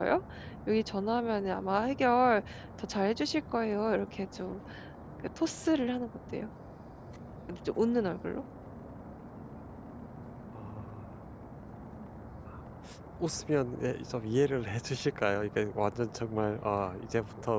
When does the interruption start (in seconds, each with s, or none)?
none